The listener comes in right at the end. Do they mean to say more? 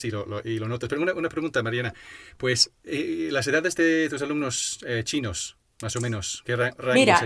Yes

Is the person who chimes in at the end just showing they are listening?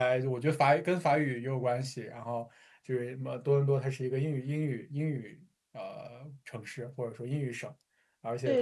No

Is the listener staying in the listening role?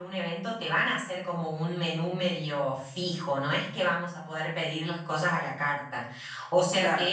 Yes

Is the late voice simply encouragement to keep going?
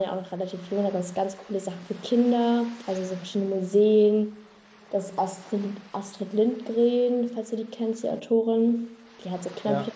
Yes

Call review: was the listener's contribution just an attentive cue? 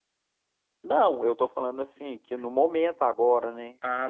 No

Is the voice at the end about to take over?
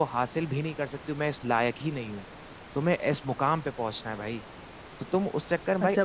Yes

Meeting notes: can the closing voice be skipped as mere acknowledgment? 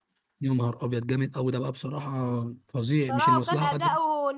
No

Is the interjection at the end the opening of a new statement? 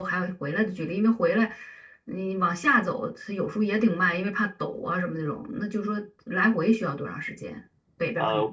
Yes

